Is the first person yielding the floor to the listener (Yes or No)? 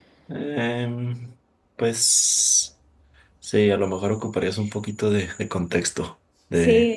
Yes